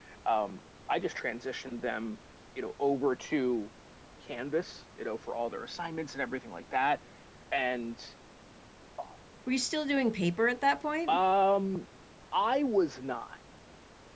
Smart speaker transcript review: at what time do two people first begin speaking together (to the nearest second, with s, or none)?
none